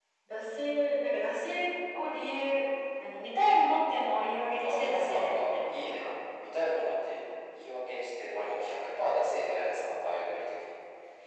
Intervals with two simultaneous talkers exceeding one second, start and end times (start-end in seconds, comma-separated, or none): 4.6-6.1